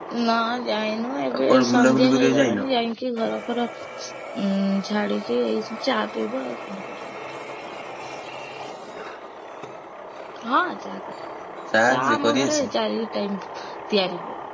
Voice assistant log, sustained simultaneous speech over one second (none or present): present